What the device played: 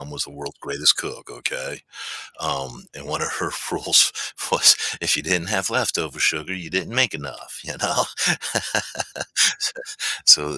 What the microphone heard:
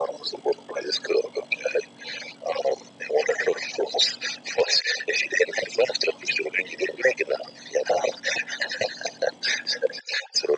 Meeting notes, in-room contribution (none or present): none